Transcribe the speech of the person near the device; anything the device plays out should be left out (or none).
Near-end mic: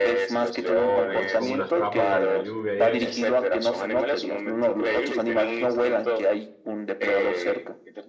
tal vez con una capa por la lluvia y eso,